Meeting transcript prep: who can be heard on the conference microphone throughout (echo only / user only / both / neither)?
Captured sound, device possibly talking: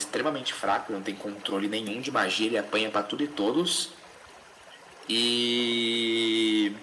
echo only